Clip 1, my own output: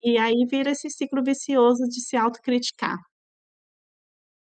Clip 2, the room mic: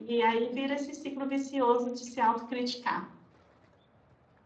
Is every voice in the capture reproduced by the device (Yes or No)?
No